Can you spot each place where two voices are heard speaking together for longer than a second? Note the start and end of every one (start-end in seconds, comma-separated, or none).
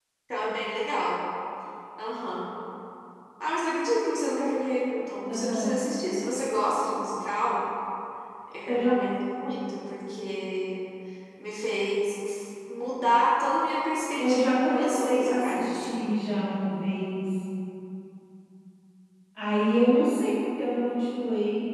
14.2-16.0